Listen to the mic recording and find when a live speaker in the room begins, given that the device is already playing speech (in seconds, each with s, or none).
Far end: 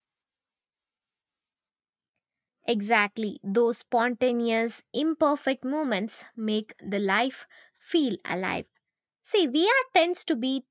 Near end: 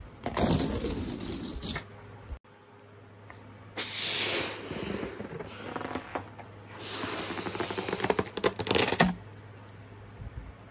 none